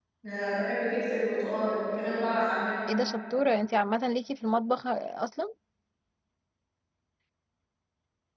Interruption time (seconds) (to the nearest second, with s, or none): none